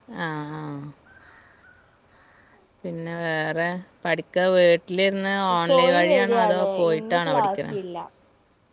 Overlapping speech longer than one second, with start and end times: 5.7-7.7

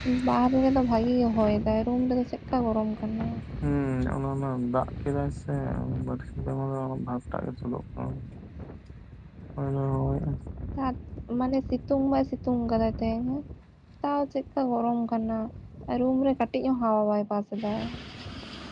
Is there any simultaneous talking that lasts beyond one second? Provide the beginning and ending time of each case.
none

